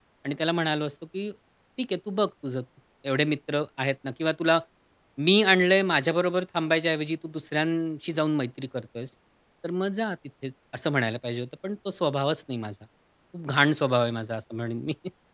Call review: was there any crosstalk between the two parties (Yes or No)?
No